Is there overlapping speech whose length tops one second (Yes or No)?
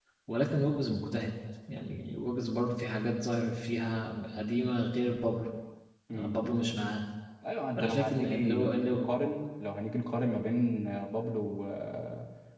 Yes